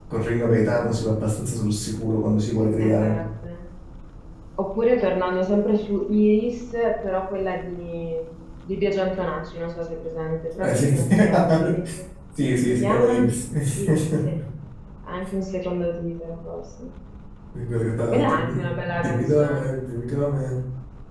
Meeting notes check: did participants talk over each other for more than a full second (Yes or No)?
Yes